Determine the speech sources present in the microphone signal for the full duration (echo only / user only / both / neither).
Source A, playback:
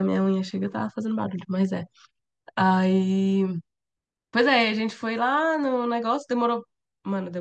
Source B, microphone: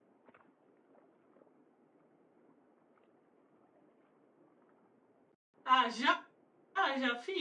user only